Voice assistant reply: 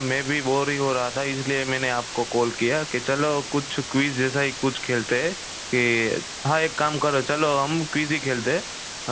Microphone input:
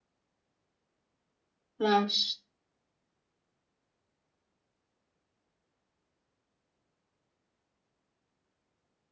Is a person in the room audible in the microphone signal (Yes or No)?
Yes